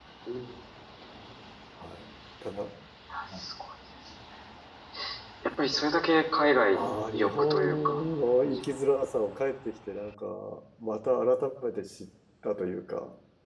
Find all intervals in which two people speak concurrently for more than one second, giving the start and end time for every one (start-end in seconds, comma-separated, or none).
6.7-8.0